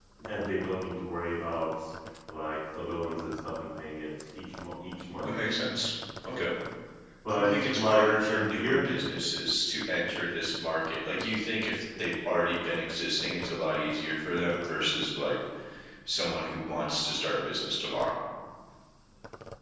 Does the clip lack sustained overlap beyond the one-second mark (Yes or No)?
No